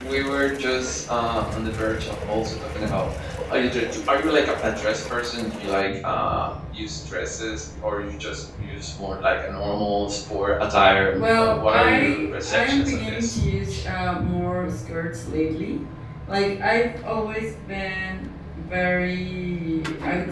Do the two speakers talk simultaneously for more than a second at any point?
Yes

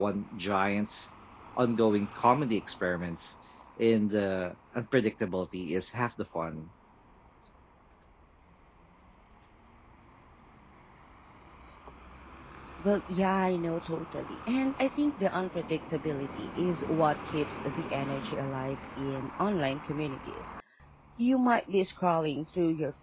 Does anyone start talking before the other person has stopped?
No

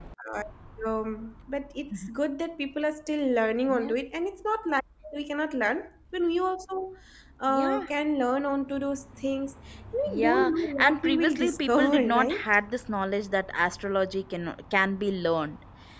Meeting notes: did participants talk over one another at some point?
Yes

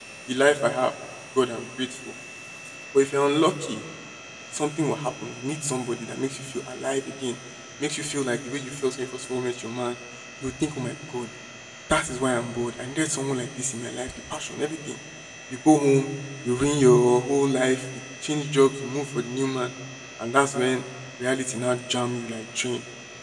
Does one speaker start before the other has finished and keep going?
No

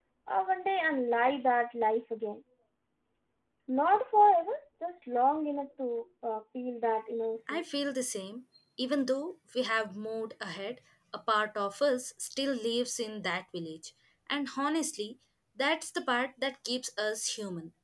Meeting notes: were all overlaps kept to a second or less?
Yes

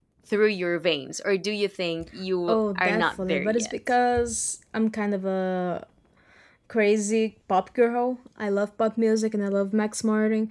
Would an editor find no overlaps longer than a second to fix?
No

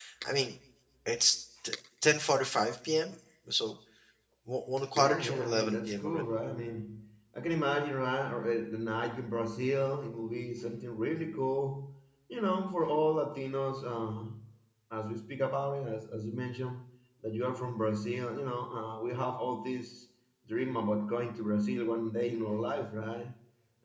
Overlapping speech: Yes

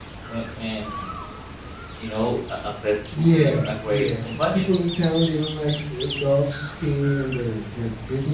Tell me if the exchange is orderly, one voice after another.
No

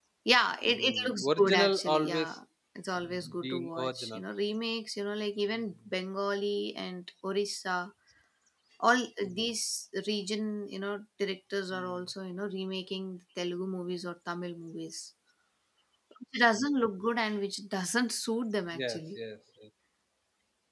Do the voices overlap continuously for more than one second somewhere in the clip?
Yes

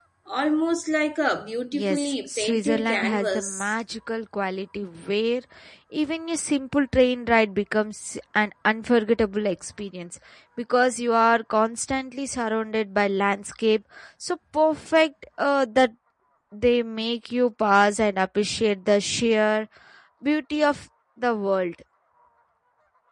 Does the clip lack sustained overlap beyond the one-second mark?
No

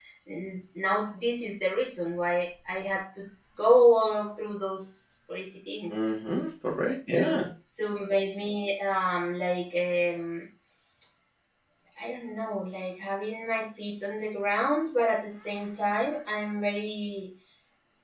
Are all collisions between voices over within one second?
Yes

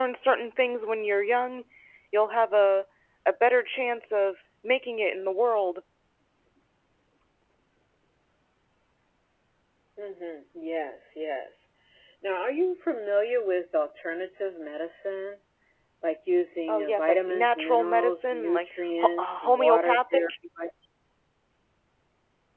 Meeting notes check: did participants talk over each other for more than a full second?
Yes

